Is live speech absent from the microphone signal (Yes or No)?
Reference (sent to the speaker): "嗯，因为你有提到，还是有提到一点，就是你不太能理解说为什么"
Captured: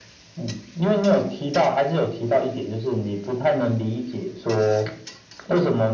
Yes